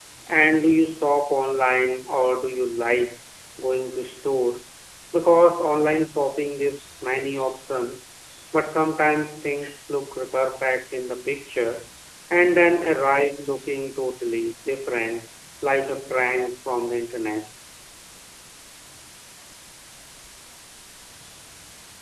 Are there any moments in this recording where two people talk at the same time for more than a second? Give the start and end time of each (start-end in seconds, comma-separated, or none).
none